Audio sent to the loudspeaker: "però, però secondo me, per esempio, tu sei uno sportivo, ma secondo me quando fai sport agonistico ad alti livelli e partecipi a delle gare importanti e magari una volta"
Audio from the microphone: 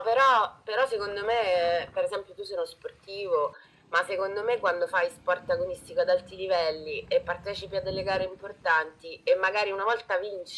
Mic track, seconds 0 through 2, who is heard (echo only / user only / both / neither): echo only